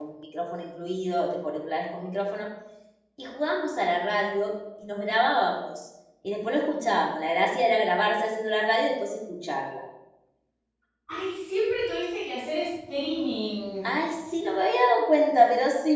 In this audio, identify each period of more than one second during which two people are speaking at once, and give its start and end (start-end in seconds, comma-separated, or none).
none